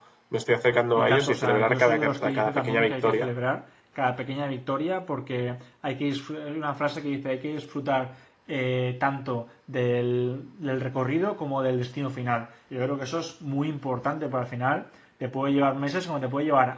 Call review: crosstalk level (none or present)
present